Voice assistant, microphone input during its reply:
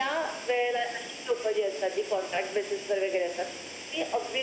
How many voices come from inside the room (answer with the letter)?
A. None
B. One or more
A